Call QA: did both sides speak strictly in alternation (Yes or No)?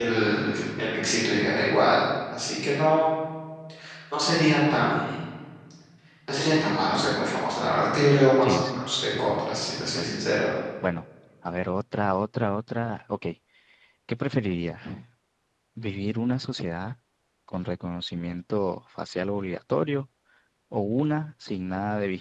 No